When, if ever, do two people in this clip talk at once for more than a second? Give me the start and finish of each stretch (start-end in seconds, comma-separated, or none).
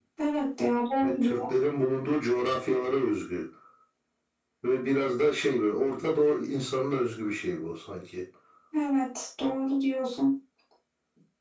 none